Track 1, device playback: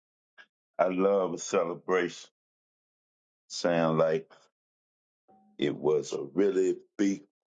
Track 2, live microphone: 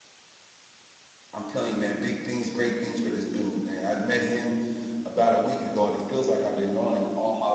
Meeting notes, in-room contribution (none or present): present